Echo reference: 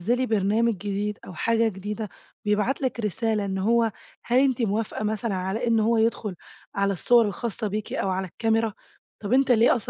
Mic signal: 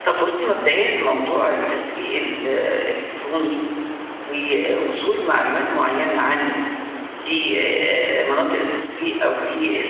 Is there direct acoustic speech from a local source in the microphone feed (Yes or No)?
Yes